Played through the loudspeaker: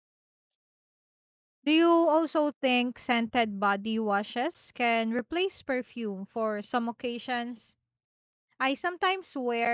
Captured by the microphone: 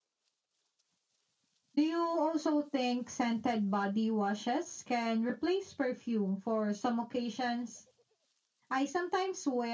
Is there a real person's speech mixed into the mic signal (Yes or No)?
No